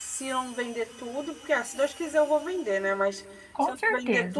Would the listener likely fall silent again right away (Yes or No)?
Yes